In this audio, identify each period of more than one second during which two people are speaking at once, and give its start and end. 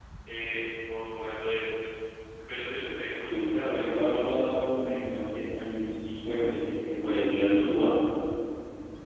3.2-5.3

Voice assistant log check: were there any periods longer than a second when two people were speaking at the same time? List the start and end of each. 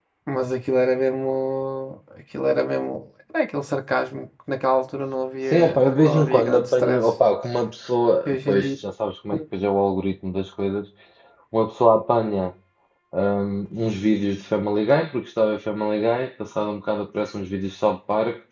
5.5-7.1

